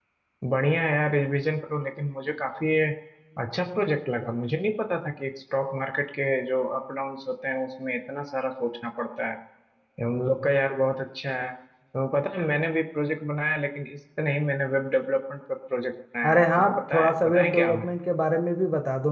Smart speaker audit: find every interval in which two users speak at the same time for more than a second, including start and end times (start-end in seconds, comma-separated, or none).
16.2-17.7